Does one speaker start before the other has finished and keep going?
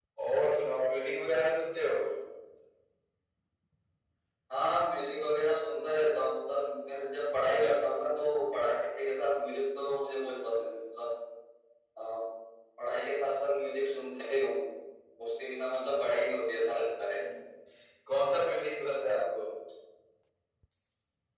No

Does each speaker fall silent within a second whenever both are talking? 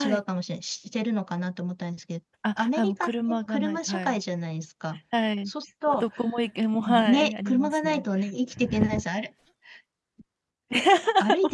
No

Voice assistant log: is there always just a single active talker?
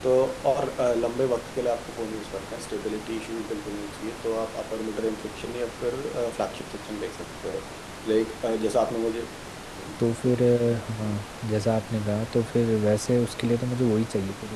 Yes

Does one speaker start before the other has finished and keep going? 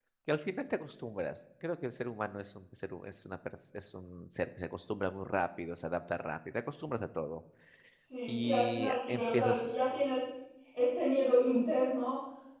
Yes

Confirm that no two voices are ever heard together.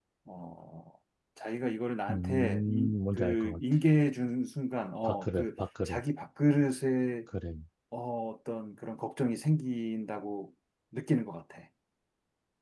No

